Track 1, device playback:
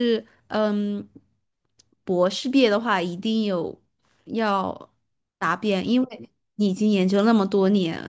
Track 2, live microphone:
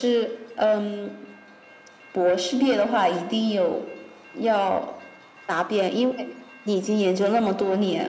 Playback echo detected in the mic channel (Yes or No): Yes